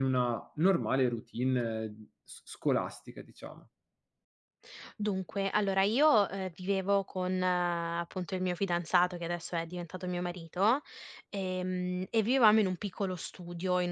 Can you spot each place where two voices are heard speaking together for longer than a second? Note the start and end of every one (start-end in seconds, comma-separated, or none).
none